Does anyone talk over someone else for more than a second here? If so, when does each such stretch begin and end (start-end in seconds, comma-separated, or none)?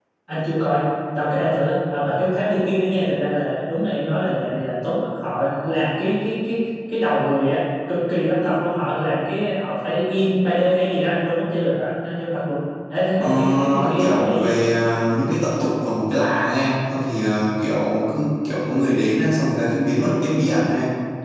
13.2-14.5